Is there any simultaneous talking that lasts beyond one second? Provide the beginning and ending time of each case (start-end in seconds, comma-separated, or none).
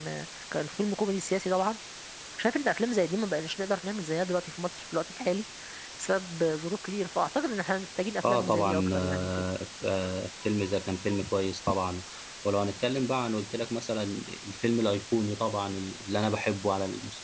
8.2-9.4